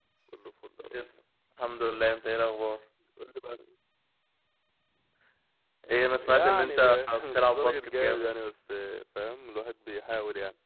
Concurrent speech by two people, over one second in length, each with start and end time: 6.2-8.3

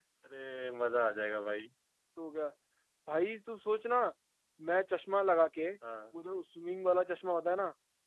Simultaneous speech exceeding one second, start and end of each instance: none

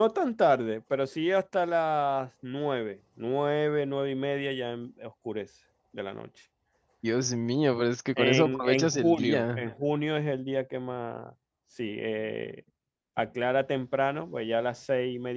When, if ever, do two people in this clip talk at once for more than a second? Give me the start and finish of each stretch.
8.2-9.7

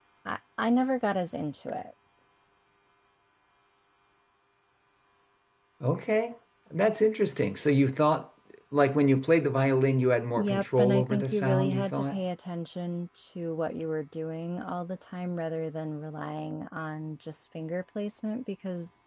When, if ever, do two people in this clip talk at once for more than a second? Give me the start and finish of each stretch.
10.4-12.2

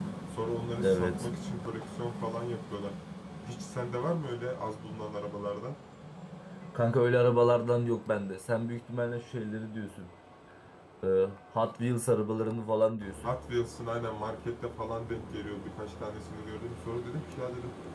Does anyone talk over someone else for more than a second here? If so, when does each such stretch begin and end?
none

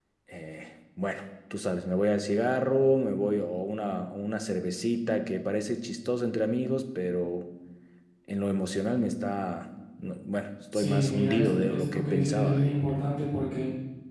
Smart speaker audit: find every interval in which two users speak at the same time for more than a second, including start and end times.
10.7-12.8

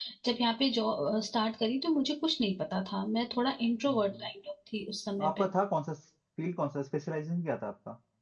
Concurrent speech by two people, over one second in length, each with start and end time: none

